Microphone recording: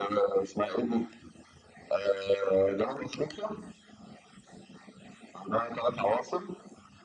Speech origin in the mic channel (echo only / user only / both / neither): echo only